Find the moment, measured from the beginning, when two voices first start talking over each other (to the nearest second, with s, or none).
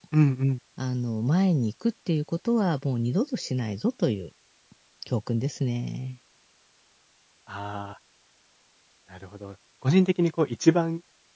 none